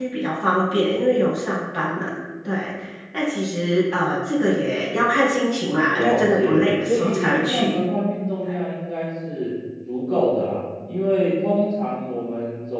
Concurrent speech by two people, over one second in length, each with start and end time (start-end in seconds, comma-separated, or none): 6.0-7.8